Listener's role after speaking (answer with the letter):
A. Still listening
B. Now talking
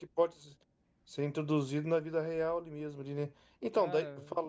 A